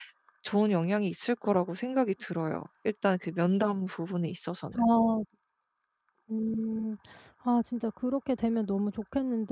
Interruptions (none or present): none